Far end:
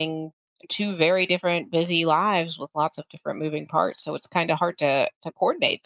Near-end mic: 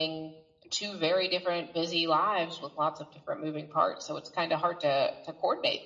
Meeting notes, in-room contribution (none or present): none